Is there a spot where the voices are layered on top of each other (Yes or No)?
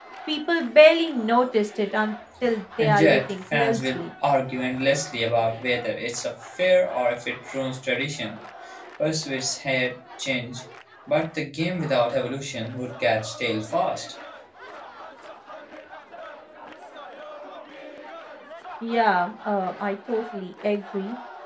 Yes